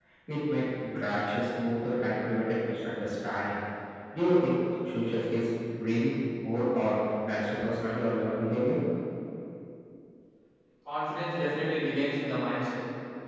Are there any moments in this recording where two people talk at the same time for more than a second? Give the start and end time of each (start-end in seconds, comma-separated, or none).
none